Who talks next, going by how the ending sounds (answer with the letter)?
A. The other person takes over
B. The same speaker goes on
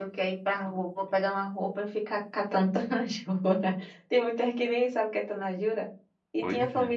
B